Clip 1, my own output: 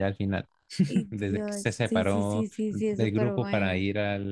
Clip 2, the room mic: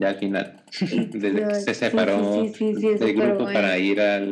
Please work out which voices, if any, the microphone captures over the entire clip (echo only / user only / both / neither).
echo only